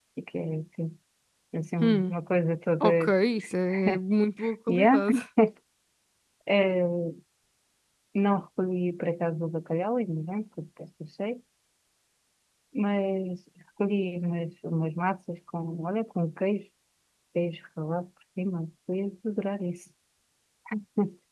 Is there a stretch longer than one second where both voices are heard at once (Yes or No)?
No